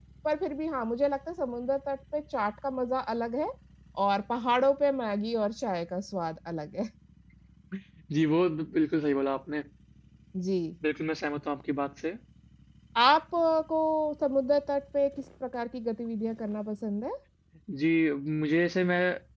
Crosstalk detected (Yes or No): No